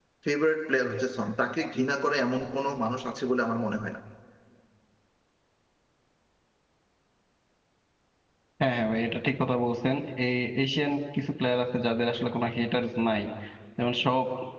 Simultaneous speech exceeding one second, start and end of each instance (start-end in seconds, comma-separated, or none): none